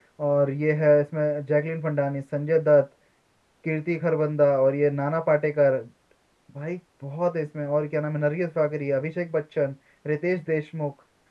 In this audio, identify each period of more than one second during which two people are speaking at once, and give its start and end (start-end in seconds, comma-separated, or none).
none